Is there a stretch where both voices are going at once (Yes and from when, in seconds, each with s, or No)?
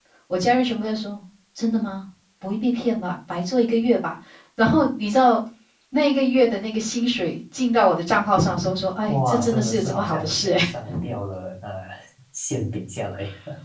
Yes, from 9.1 s